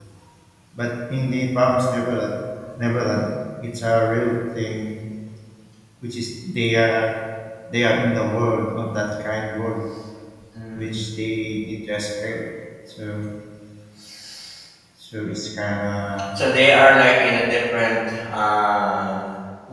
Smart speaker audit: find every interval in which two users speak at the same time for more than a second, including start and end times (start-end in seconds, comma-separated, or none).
none